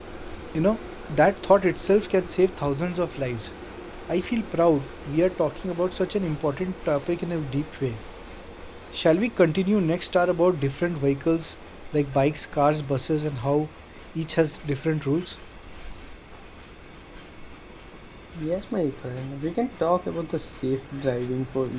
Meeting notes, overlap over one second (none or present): none